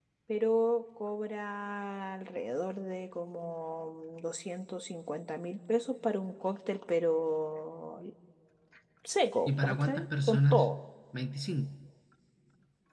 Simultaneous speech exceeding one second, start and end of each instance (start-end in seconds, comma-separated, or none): 9.5-10.7